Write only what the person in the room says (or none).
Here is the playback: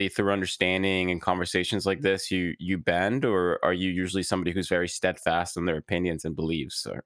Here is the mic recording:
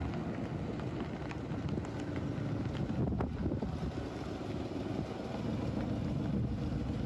none